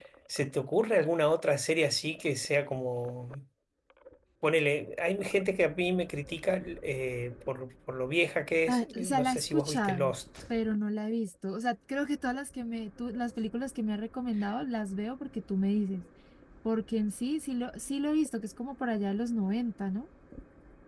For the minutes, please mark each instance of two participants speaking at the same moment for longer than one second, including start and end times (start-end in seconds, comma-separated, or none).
8.7-10.1